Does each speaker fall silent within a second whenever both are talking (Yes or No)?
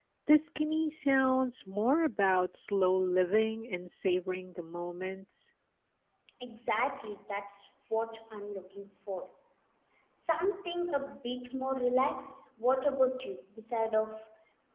Yes